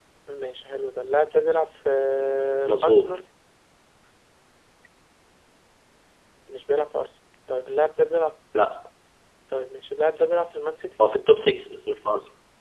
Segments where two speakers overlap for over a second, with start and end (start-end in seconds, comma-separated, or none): none